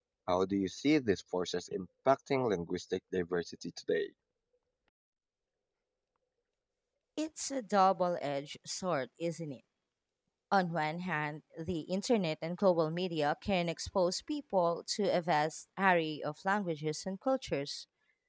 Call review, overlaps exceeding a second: none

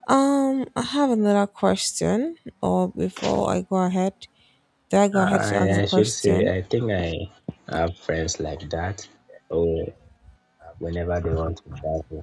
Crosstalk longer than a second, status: present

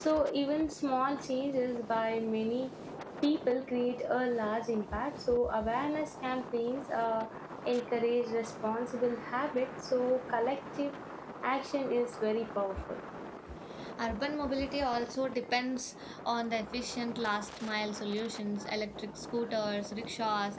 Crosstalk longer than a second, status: none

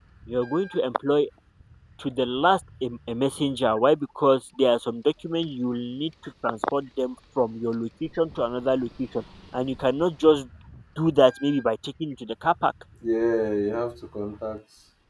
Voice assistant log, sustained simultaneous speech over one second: none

